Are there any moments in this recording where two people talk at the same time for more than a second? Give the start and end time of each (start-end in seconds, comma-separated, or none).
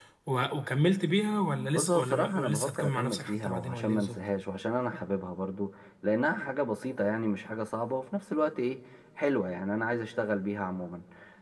1.7-4.2